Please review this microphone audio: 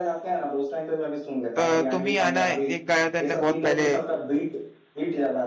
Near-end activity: present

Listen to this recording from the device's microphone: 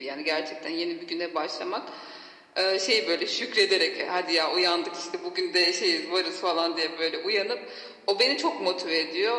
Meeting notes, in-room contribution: none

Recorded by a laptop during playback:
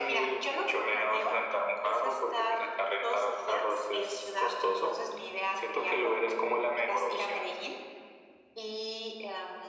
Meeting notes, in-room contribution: none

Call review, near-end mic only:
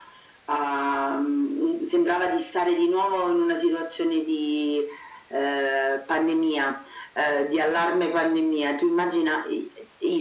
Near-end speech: none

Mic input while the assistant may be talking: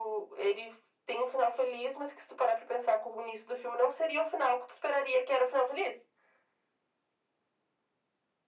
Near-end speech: none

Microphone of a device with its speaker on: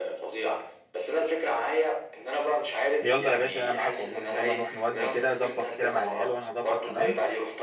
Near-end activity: present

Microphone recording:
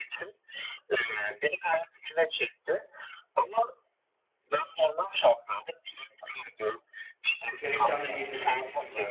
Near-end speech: present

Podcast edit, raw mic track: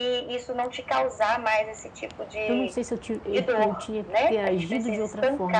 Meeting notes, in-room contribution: present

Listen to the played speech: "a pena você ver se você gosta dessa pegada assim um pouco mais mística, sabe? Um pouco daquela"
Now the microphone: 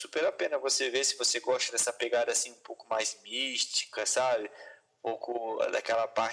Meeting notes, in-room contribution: none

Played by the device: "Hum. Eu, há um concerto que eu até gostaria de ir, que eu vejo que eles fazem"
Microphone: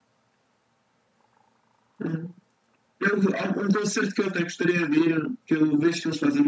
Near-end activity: none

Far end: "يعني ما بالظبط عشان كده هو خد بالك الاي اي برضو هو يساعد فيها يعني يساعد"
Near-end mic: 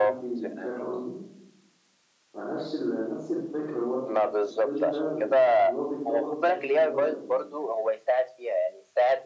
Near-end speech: present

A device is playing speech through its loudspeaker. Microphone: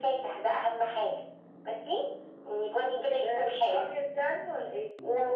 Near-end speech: none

